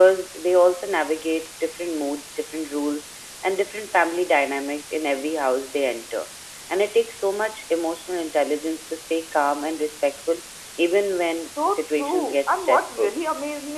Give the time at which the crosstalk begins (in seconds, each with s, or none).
11.6 s